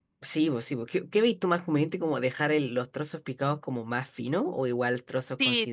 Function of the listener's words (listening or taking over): taking over